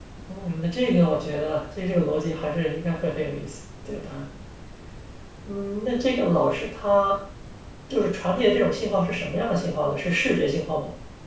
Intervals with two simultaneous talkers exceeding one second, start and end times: none

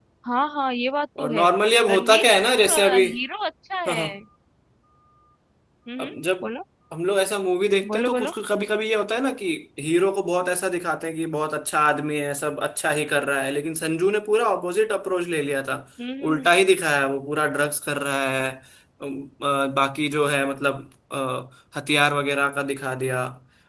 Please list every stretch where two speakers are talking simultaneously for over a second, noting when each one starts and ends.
none

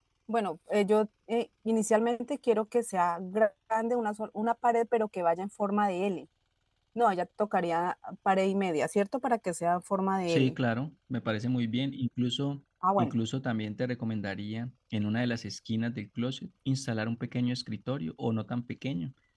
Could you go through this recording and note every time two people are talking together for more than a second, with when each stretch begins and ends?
none

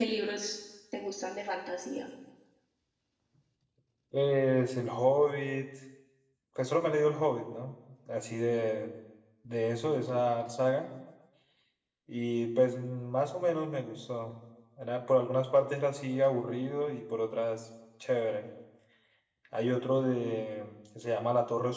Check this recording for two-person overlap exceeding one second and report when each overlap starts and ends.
none

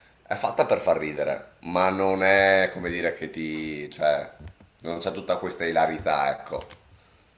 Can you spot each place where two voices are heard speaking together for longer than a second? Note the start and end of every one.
none

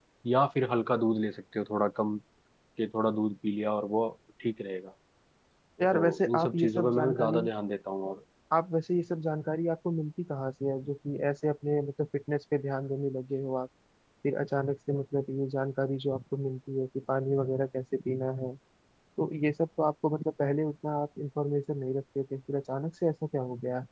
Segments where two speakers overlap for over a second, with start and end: 5.9-7.5

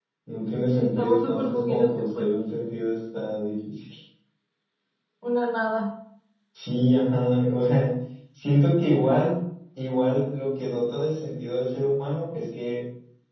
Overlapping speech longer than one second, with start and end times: 0.7-2.2

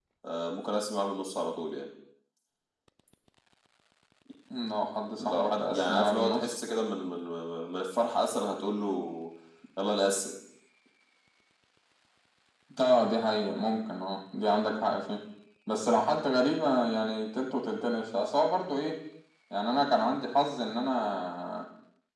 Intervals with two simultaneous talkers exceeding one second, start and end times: 5.2-6.5

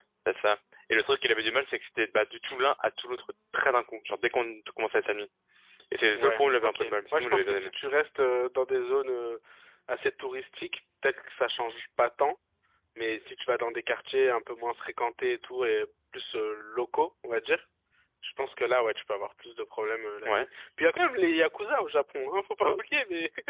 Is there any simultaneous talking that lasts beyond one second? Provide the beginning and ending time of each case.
6.2-7.7

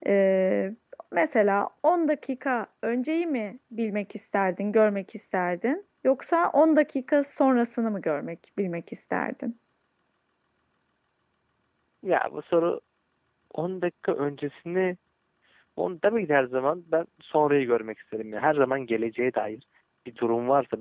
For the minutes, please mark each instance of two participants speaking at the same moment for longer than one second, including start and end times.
none

